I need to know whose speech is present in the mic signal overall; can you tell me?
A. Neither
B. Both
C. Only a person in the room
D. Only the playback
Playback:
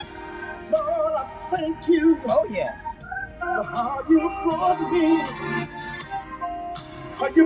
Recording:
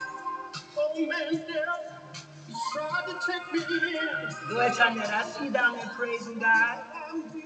C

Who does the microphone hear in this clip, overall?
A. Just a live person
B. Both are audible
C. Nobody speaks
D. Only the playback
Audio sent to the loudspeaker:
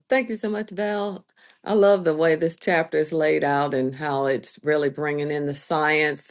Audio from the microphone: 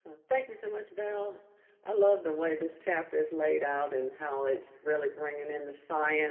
D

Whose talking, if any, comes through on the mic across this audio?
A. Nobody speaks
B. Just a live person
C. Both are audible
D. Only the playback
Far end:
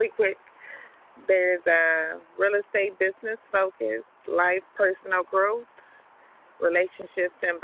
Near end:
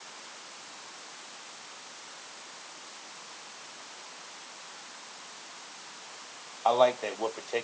B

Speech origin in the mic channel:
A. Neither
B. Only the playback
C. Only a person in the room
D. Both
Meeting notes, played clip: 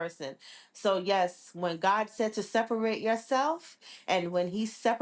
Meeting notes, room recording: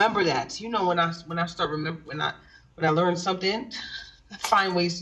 C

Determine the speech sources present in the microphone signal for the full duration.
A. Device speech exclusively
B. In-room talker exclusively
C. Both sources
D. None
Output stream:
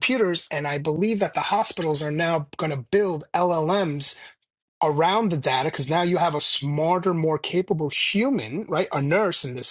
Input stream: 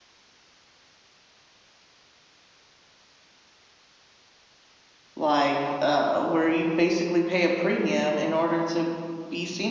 B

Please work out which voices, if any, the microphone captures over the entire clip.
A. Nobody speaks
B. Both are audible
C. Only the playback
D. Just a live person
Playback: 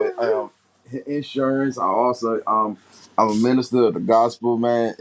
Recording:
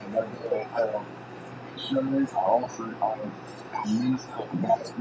C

